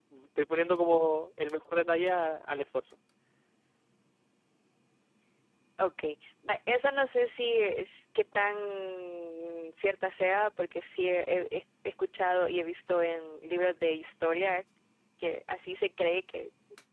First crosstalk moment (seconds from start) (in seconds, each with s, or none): none